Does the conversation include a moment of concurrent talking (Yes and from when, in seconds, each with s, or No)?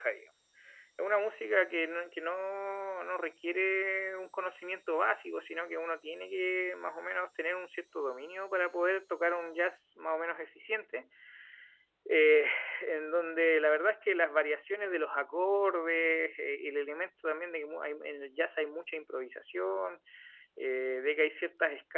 No